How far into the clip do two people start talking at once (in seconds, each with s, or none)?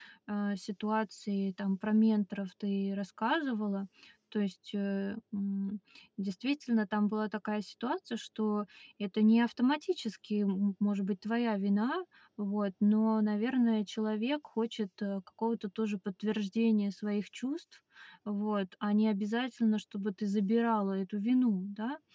none